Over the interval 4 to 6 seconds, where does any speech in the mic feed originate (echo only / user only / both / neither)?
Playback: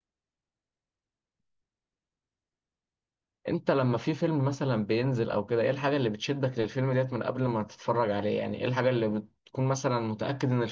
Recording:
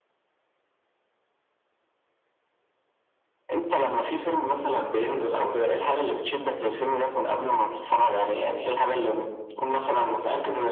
echo only